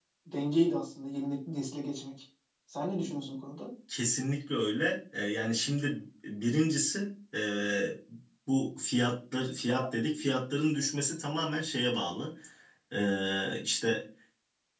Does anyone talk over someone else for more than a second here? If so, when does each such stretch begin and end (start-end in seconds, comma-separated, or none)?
none